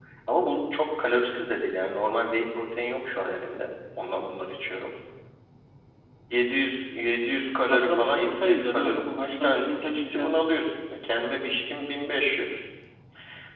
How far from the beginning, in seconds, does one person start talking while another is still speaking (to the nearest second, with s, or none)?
8 s